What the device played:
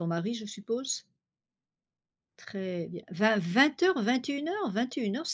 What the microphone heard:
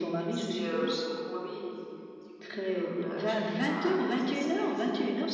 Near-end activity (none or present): present